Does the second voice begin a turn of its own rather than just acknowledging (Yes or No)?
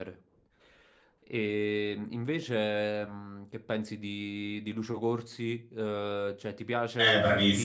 Yes